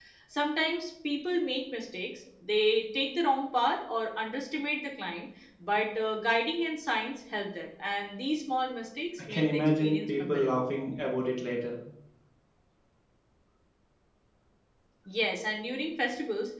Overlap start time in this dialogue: 9.2 s

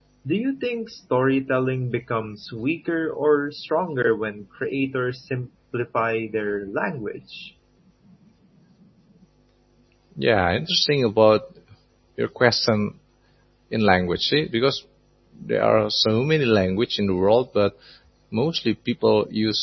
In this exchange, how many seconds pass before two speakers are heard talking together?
none

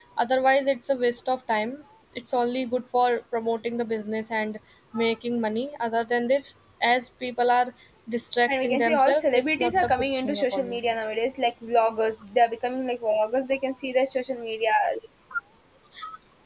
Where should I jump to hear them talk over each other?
8.5 s

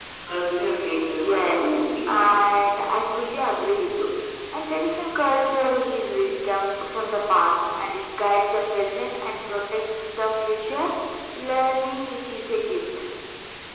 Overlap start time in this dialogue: 1.0 s

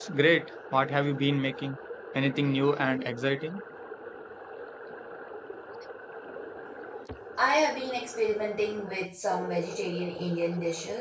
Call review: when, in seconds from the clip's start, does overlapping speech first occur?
none

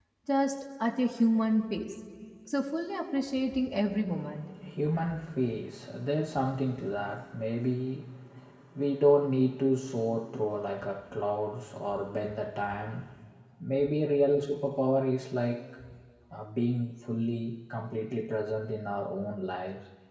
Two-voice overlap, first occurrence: none

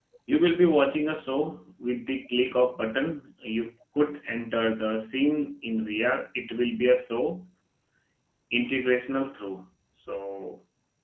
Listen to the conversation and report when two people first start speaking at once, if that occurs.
none

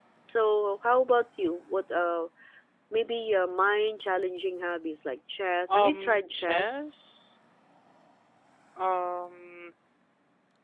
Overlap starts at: 5.7 s

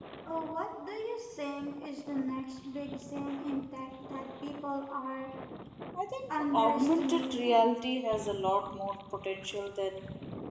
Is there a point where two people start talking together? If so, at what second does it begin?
6.3 s

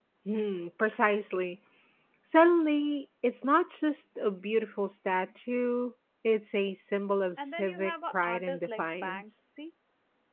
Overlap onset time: 7.4 s

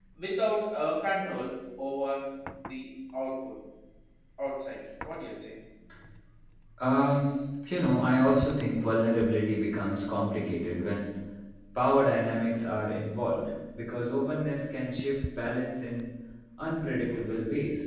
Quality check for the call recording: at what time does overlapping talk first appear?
none

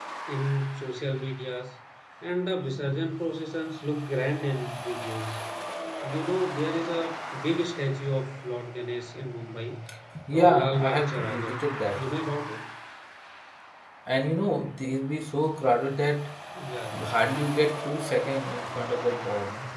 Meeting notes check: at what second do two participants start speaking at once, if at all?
10.3 s

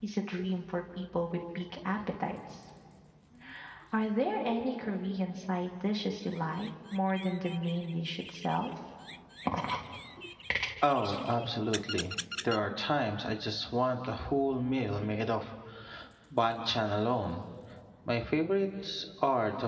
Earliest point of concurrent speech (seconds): none

